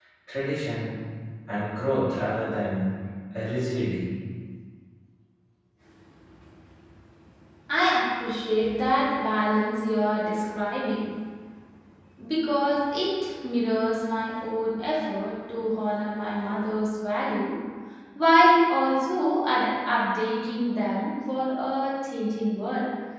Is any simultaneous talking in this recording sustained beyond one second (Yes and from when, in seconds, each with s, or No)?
No